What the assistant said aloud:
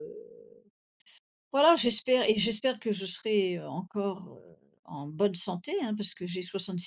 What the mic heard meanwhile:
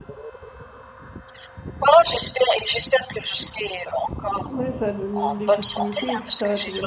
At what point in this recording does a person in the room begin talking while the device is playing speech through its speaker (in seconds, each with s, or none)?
4.5 s